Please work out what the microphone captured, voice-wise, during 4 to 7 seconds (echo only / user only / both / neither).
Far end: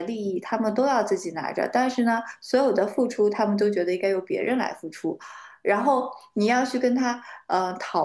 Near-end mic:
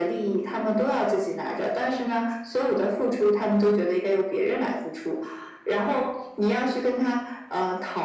echo only